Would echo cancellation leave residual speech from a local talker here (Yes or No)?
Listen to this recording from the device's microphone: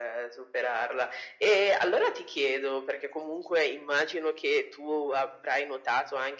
No